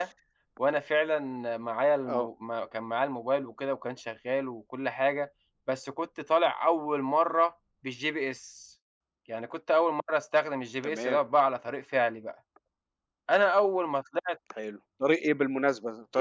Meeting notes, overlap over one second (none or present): none